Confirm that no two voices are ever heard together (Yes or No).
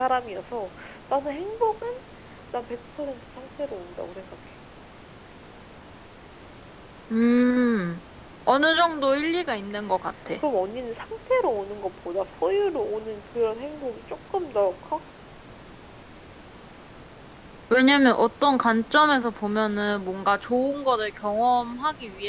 Yes